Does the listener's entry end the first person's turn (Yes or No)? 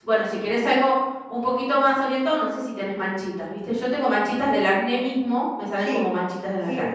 Yes